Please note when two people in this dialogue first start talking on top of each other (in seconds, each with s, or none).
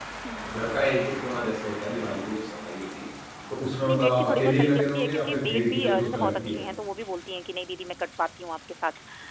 3.9 s